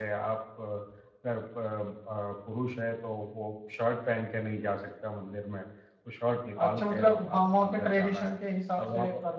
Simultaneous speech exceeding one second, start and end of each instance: 6.6-8.3

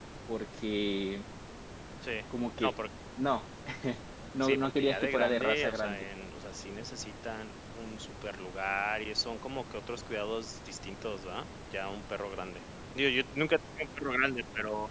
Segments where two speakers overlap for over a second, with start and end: 4.4-6.0

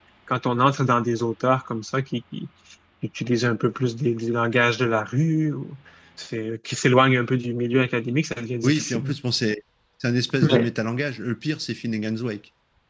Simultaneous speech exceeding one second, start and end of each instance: none

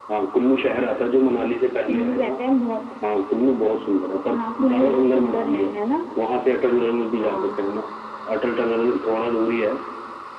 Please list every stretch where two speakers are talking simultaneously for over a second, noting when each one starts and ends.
4.3-5.7

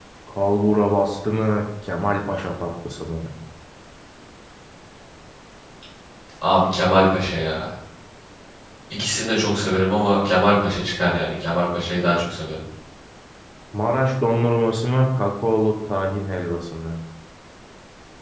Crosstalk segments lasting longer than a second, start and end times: none

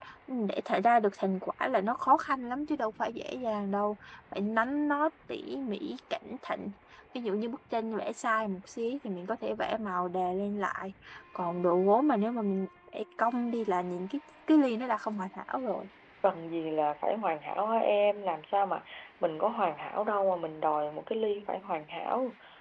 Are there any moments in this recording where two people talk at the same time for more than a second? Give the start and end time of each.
none

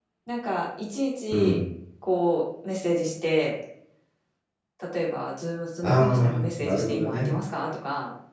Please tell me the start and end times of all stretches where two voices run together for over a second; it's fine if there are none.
5.8-7.4

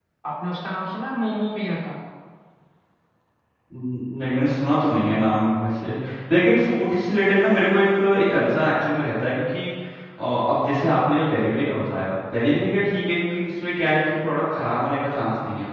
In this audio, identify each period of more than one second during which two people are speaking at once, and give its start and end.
none

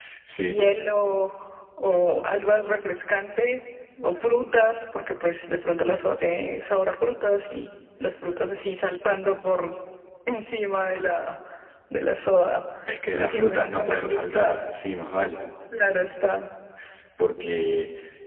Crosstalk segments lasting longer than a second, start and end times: 13.1-14.4

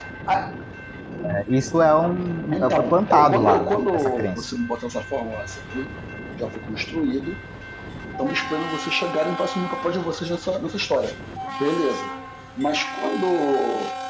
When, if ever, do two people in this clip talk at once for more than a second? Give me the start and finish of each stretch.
2.5-4.5

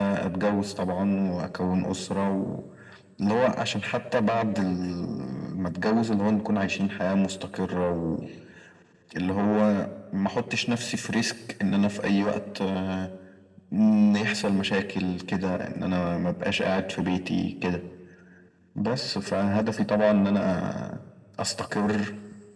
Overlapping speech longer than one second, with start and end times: none

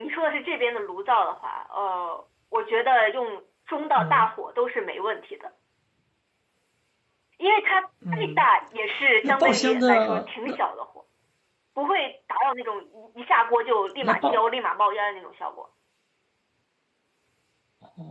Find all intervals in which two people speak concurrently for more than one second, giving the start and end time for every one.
9.2-10.6

